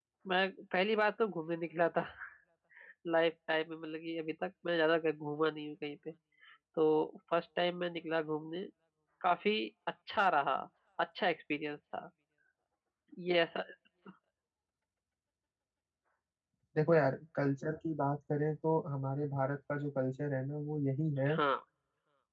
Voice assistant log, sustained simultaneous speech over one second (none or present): none